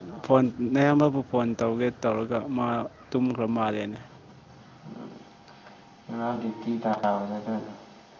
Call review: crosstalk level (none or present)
none